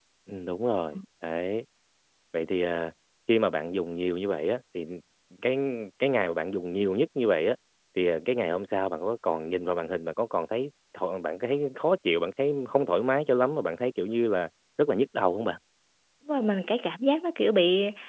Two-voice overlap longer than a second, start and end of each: none

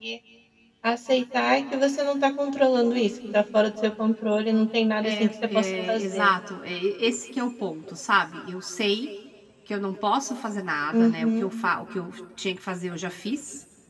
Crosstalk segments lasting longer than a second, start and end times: 5.0-6.3

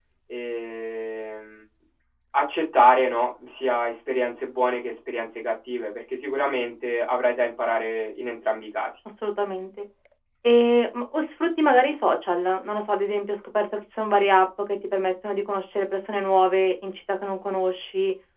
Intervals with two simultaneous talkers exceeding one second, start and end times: none

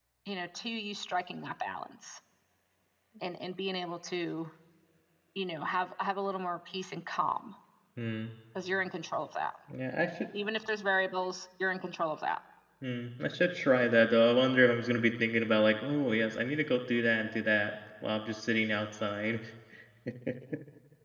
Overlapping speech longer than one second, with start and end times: none

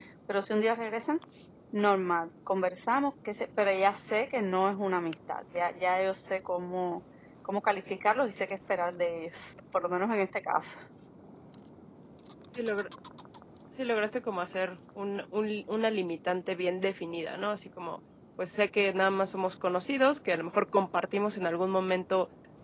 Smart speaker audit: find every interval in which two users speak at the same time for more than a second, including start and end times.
none

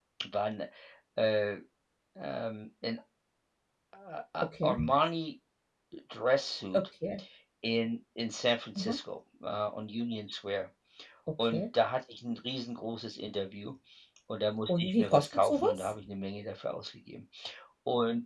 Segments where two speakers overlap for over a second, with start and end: 14.7-15.9

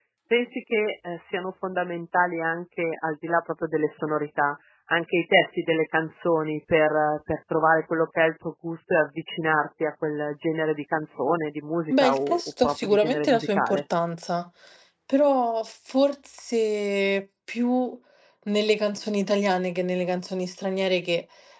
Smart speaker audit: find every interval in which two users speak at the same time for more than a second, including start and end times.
11.9-13.8

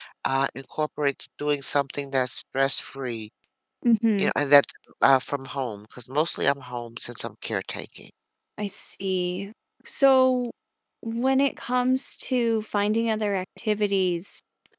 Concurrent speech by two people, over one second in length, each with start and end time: none

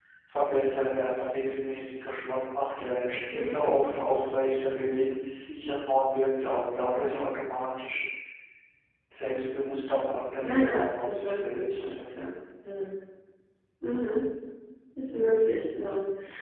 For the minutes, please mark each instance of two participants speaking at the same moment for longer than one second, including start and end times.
10.4-12.0

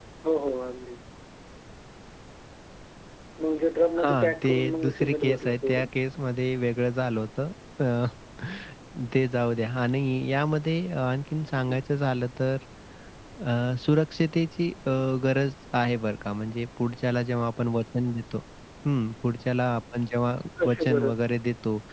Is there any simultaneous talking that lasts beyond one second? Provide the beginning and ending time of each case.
4.0-5.9

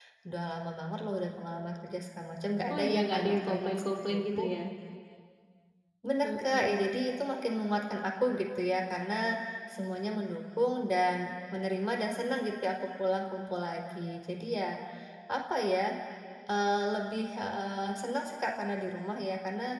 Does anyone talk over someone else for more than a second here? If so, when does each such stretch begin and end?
2.7-4.4

